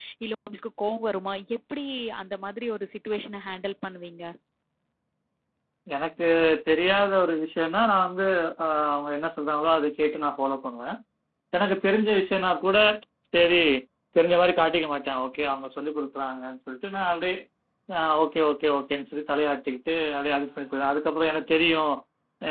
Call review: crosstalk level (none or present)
none